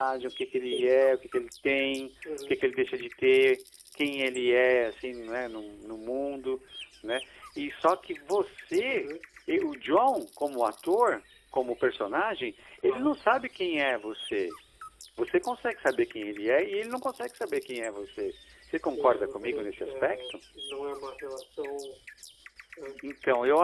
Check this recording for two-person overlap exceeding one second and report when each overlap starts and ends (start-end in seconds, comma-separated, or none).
18.8-20.3